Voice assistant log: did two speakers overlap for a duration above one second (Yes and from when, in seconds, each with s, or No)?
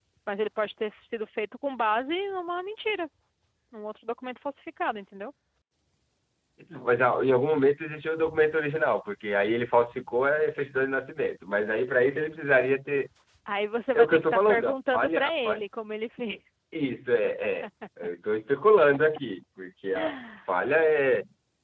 Yes, from 13.9 s